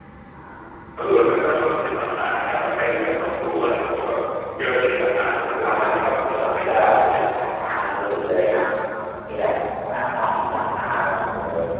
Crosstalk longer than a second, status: present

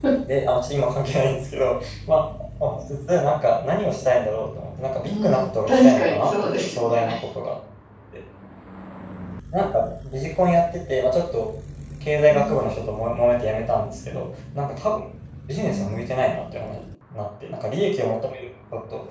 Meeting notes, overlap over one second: present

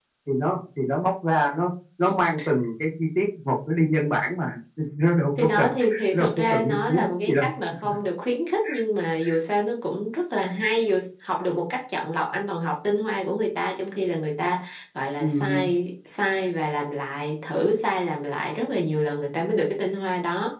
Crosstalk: present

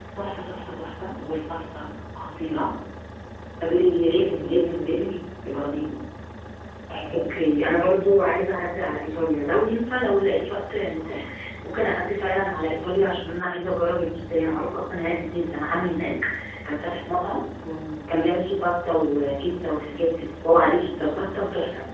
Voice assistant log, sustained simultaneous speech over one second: none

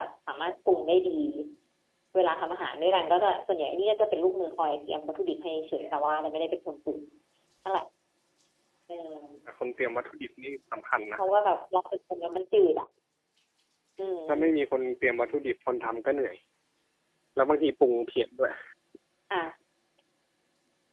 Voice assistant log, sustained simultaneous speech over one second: none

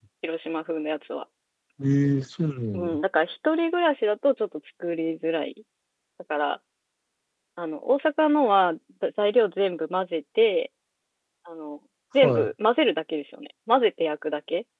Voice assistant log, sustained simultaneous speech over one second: none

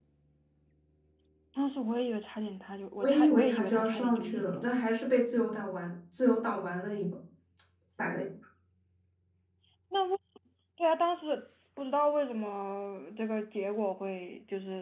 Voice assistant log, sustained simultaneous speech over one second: present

